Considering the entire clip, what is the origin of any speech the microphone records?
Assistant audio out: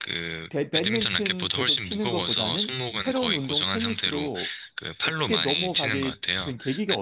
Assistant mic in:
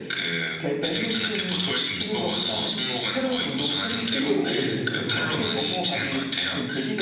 both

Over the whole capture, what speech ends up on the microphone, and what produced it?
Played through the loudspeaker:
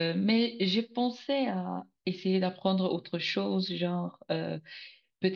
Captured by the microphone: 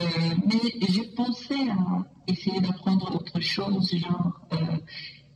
echo only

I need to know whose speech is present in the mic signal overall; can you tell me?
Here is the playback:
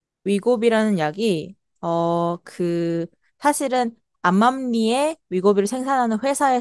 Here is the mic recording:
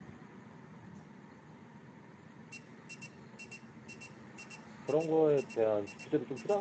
user only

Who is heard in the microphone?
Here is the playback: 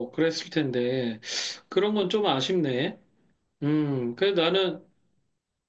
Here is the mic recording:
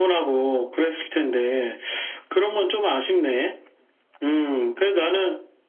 echo only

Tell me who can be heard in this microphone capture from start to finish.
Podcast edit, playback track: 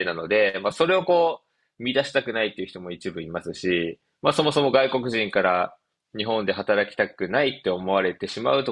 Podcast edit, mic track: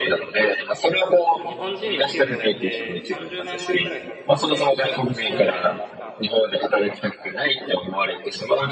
both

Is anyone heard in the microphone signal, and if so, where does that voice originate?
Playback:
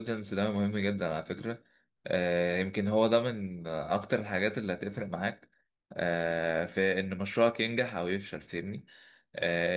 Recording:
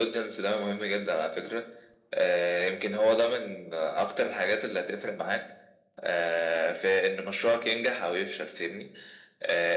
echo only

